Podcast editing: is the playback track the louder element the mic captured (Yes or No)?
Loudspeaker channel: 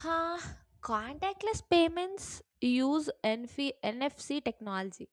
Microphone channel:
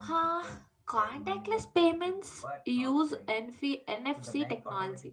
Yes